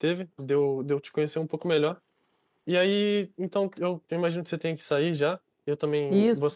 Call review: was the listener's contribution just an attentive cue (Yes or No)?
Yes